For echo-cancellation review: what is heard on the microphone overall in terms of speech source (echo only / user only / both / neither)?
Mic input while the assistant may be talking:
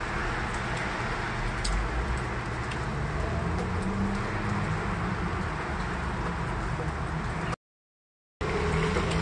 neither